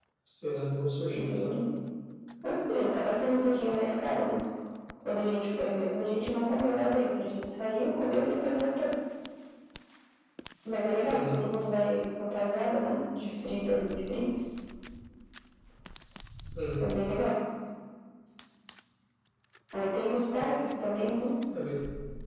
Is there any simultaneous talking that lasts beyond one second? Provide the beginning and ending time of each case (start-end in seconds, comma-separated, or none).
none